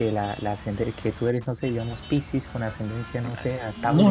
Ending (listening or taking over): taking over